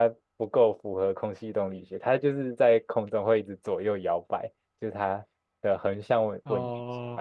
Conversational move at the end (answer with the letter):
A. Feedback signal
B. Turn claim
B